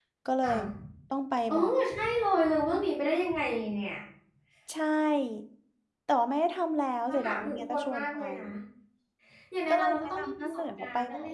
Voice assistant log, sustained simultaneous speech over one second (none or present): present